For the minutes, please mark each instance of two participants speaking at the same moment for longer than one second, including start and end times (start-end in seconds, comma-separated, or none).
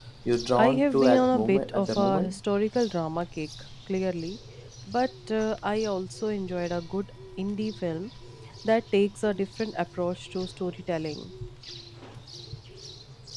0.6-2.4